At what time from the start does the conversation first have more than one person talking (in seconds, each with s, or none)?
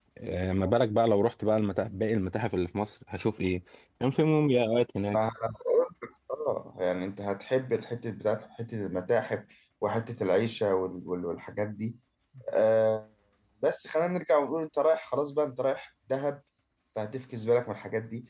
none